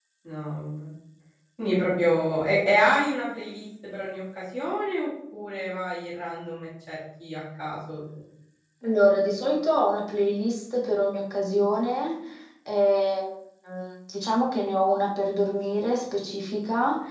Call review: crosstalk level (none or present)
none